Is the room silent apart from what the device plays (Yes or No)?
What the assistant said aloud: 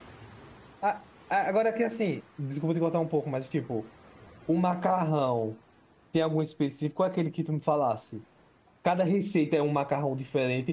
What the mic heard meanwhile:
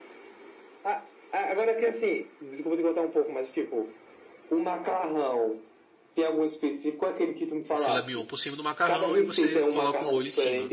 No